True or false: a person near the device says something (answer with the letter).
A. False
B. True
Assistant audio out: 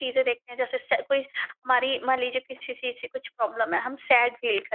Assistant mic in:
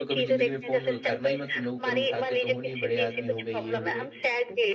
B